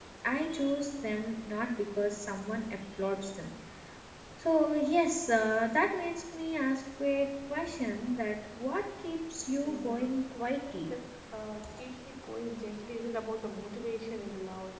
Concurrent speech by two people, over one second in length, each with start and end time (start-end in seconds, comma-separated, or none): 9.6-10.9